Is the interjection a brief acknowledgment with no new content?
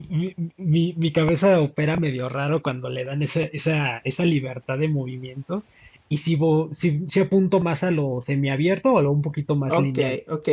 No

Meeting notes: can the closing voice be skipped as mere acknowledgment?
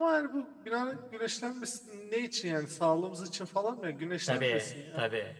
No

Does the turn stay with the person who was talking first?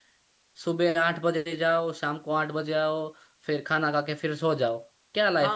No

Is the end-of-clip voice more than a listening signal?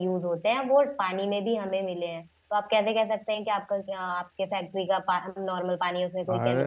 Yes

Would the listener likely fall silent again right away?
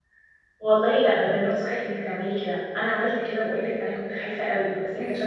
Yes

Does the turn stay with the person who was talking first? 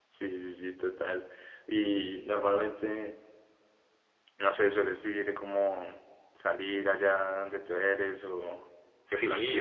No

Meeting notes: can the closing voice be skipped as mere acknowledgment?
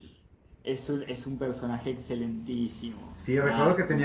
No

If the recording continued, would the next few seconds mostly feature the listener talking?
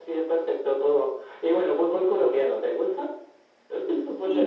Yes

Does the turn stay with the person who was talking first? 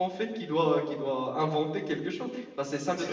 No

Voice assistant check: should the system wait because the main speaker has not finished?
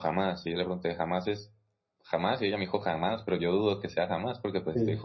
No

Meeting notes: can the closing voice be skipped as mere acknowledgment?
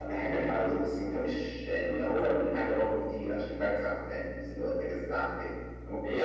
No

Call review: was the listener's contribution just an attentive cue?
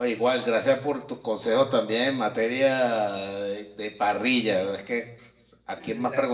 Yes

